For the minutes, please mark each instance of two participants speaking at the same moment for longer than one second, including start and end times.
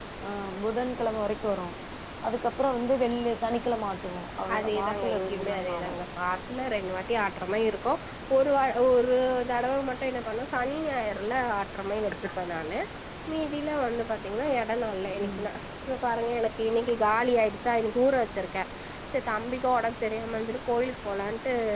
4.5-6.0

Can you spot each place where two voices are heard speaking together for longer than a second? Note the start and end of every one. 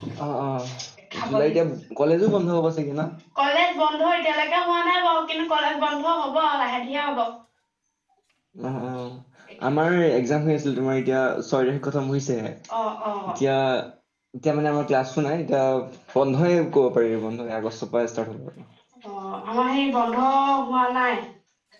none

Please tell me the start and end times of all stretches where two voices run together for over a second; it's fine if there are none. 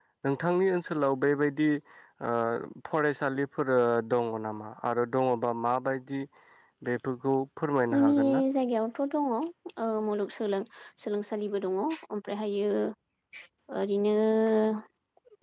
none

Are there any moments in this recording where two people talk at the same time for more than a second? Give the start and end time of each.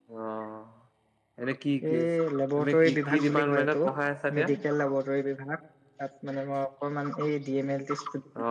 2.6-3.8

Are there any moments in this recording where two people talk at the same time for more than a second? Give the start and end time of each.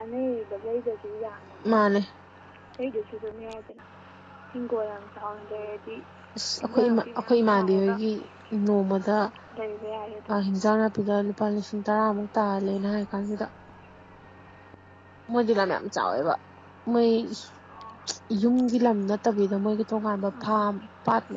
6.6-7.9

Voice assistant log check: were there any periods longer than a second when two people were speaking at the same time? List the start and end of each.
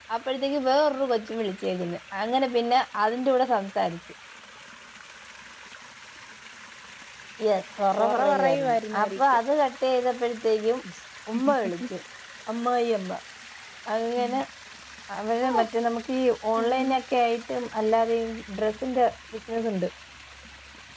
8.0-9.2

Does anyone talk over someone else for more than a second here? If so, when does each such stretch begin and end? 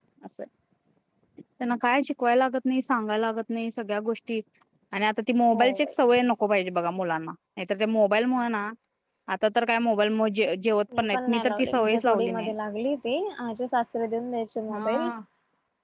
11.0-12.5

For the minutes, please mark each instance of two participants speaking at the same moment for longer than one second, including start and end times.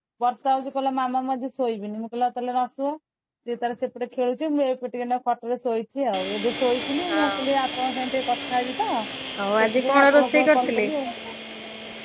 9.6-10.9

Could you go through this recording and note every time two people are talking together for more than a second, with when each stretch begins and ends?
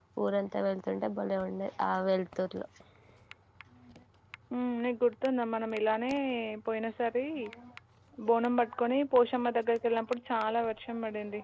none

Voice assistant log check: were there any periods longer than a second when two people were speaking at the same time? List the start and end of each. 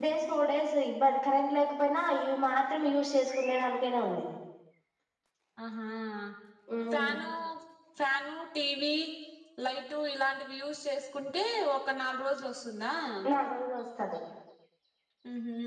none

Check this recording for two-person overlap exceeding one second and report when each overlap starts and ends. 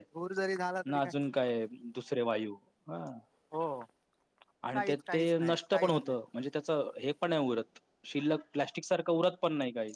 4.7-6.2

